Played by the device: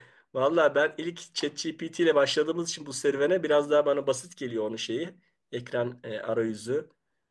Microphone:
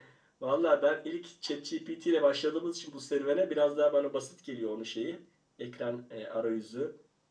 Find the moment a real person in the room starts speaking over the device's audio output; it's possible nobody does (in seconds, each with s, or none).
none